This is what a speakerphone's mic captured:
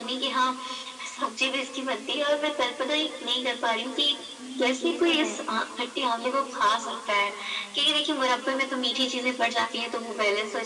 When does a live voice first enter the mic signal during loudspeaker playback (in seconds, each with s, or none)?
4.4 s